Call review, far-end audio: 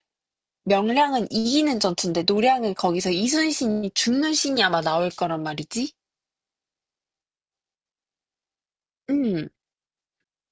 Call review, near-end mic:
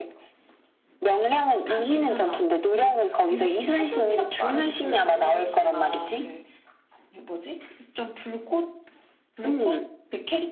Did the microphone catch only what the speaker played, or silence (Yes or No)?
No